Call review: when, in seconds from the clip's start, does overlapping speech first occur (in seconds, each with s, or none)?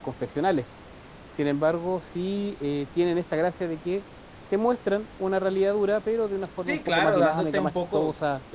6.7 s